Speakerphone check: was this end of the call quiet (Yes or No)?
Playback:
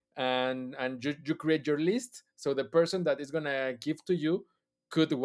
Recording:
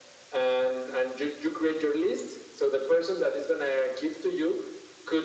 Yes